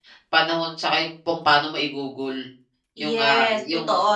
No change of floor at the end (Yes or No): No